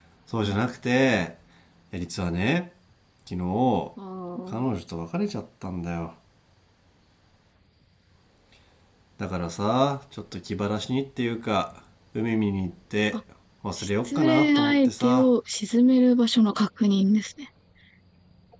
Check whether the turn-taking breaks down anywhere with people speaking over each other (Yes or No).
Yes